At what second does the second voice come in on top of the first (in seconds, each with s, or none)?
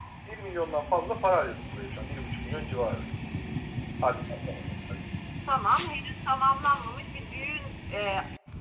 none